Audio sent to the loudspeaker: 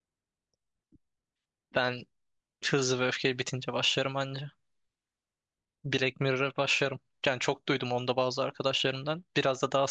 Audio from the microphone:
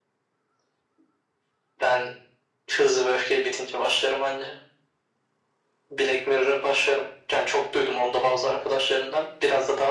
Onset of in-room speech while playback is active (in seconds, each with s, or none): none